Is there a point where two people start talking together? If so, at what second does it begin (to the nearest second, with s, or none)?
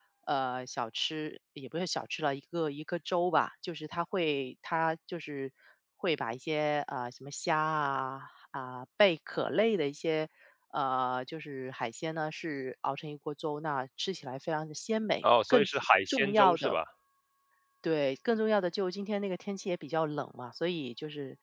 16 s